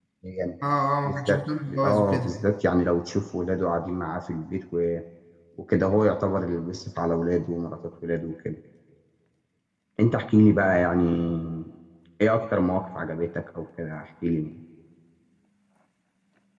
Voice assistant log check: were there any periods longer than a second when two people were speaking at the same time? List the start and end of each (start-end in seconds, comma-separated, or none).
1.0-2.3